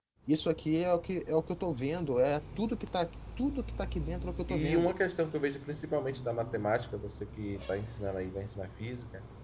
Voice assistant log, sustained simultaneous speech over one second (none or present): none